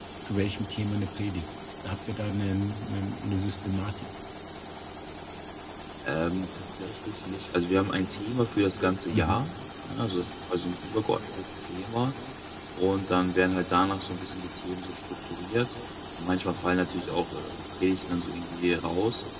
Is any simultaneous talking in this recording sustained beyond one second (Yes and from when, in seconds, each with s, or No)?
No